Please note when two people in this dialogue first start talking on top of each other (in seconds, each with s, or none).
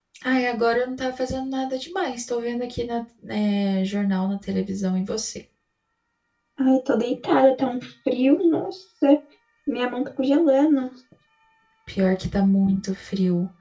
none